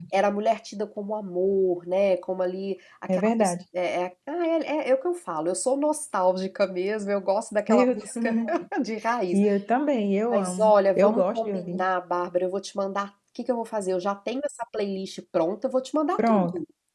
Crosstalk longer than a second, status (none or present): present